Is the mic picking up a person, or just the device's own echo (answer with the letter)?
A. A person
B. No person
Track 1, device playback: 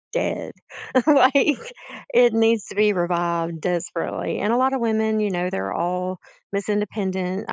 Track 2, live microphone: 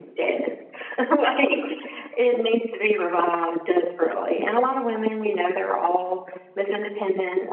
B